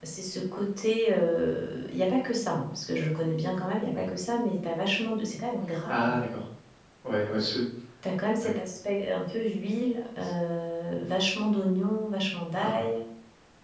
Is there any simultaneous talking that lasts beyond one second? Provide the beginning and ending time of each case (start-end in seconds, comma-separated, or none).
none